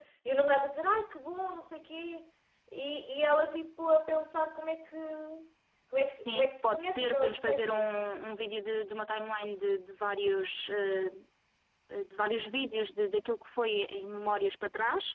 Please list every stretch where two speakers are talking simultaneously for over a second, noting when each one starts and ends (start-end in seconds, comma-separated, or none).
6.3-7.9